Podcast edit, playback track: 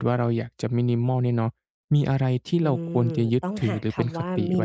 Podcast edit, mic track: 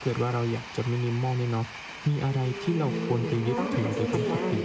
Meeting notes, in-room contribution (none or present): present